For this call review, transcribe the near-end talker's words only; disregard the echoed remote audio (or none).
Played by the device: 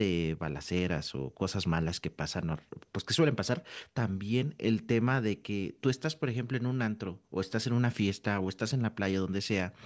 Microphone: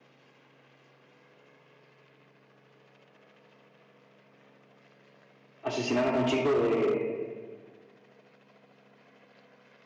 asesinaron a un chico de